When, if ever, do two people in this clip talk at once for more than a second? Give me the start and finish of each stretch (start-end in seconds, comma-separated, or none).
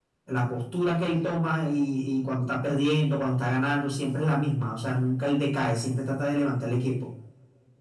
none